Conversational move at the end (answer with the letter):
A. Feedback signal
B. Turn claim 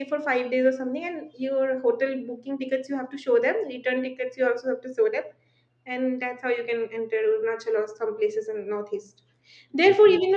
A